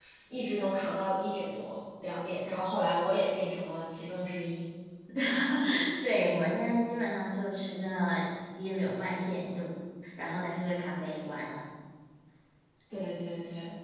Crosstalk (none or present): none